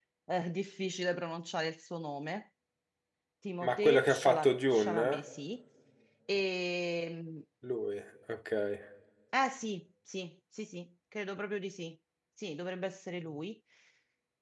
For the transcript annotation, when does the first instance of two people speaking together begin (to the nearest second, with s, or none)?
4 s